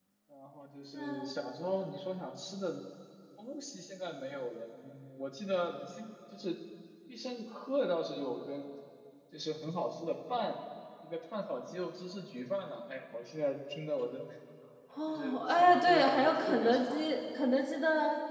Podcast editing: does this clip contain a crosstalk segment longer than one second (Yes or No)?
Yes